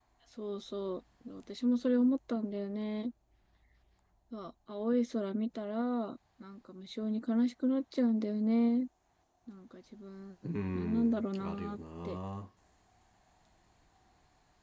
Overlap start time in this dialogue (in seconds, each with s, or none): 10.4 s